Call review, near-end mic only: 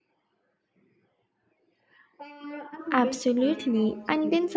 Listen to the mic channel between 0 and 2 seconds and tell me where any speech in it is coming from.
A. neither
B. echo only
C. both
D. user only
A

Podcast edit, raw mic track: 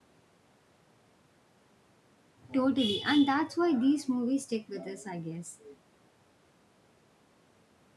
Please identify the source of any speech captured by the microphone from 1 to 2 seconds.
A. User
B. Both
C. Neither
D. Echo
C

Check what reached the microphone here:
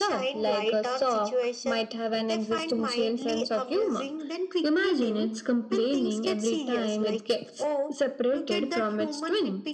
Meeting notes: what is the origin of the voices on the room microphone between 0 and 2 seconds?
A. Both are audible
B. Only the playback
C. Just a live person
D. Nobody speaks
B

